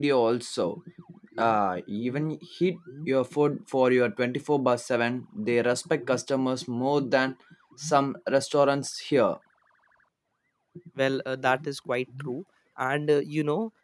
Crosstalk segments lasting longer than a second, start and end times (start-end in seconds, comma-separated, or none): none